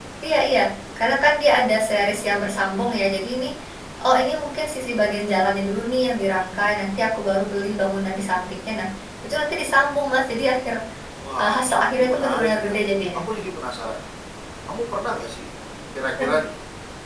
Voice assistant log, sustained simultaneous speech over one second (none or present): present